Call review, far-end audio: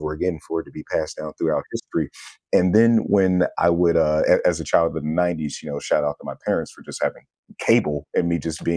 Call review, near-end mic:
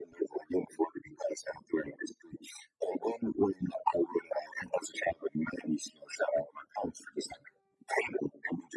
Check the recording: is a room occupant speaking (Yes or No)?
No